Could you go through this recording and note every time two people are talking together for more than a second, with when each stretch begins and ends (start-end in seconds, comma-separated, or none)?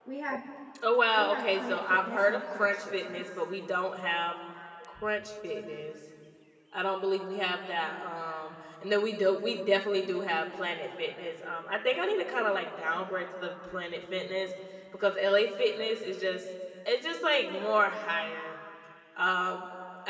1.2-3.2